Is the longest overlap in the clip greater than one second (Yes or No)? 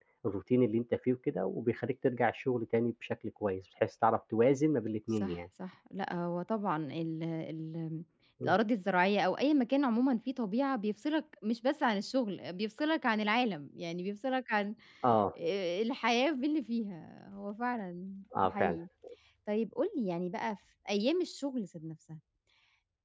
No